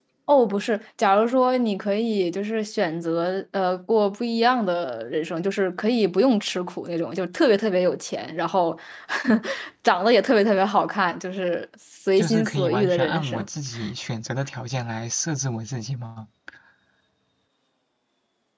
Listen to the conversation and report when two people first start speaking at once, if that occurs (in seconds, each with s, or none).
12.2 s